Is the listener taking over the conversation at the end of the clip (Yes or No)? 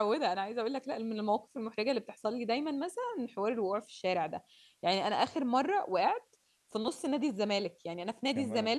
No